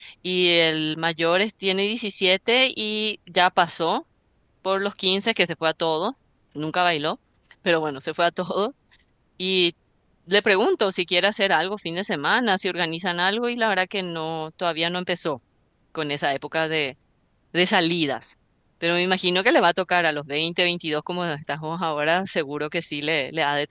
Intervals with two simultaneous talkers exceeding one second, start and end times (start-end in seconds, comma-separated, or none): none